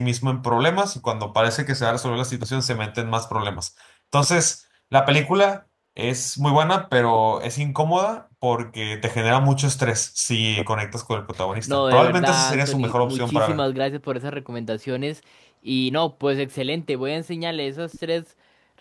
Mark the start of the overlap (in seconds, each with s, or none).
11.7 s